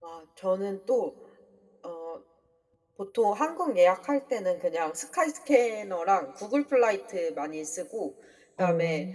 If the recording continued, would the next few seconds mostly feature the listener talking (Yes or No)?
No